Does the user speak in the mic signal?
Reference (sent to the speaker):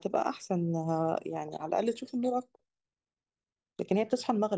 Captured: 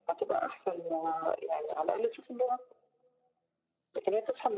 No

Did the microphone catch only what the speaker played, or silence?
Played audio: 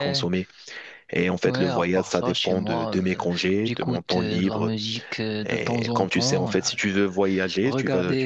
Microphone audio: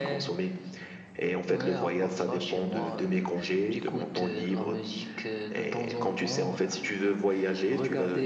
Yes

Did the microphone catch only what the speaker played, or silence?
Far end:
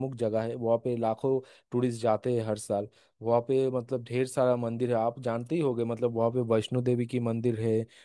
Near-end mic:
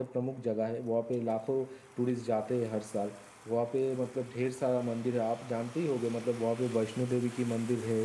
Yes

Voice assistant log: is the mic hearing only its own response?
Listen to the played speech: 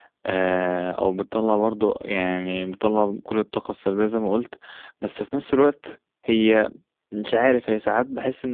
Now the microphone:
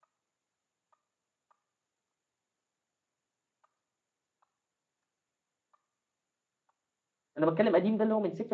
No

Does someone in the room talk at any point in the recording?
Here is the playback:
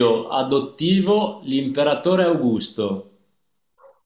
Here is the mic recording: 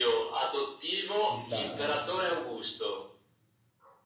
Yes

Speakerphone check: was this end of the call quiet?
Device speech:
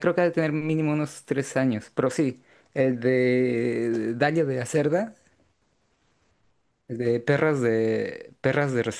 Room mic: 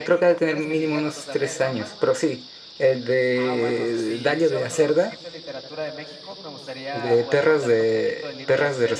No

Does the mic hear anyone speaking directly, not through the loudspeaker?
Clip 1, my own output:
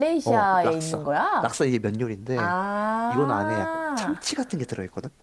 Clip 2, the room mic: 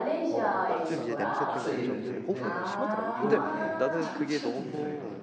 Yes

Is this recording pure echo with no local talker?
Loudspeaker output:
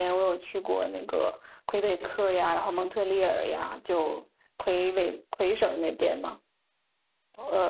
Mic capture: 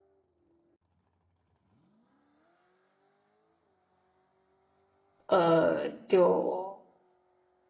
No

